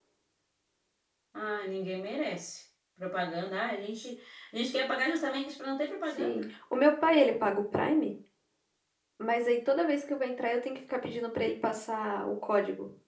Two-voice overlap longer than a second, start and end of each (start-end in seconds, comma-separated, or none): none